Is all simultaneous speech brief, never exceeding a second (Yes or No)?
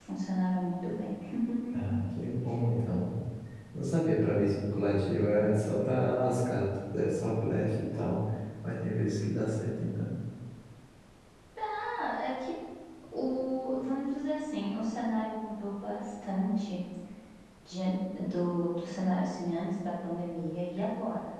Yes